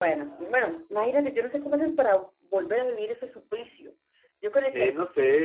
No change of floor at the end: No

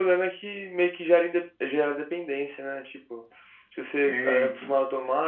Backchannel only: Yes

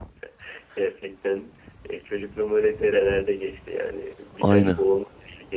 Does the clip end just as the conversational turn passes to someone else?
No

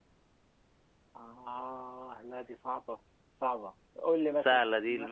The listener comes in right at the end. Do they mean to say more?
Yes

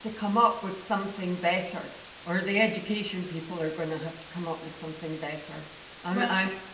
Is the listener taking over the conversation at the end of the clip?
No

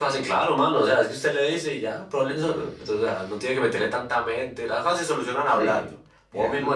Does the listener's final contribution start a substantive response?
No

